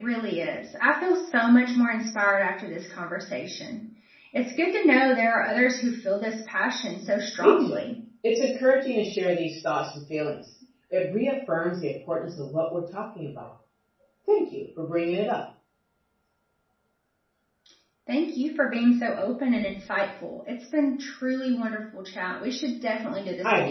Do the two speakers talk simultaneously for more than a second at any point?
No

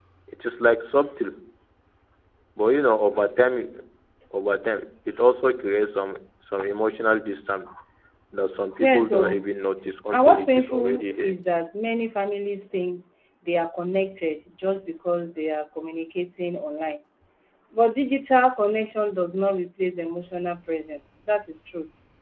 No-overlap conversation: No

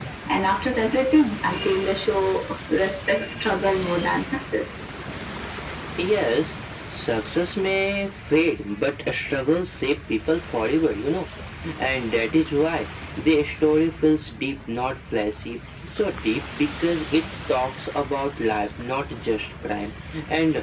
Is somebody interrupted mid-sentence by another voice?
No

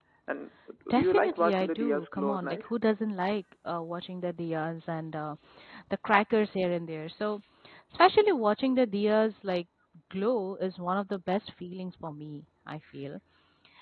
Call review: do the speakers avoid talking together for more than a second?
No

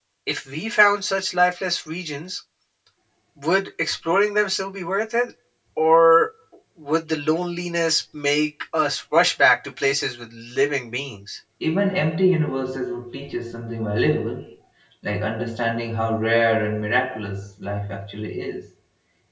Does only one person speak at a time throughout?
Yes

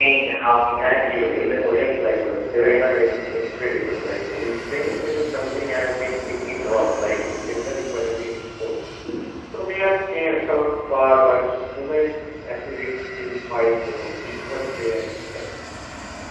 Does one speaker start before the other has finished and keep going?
Yes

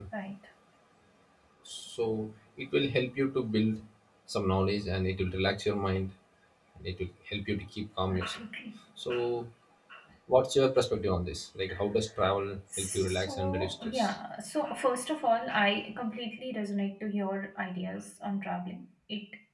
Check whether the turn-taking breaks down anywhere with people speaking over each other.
Yes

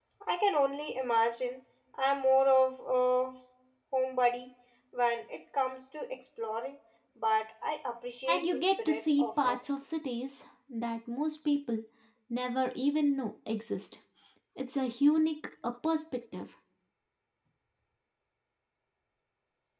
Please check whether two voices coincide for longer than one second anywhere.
Yes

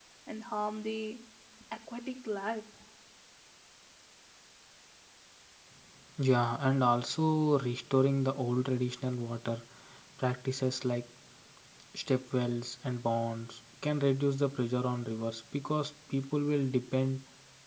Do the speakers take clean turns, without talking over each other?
Yes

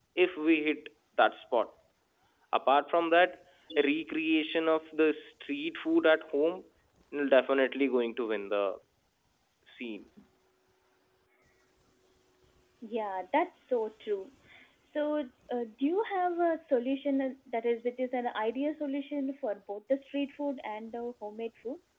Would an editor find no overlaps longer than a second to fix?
Yes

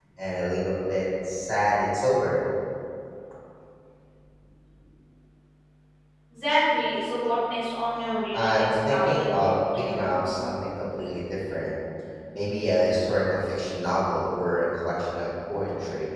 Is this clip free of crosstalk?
No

